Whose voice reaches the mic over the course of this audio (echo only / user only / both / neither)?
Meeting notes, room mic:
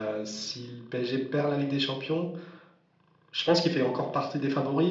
echo only